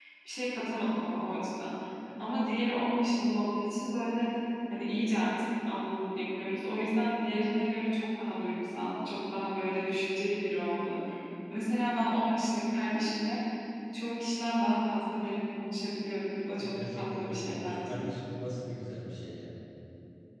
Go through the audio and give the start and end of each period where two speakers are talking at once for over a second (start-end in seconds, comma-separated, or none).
16.6-18.0